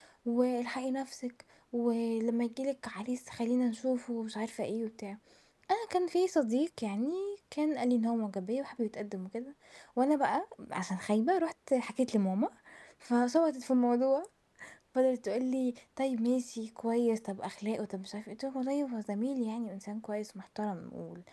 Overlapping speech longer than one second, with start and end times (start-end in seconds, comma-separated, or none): none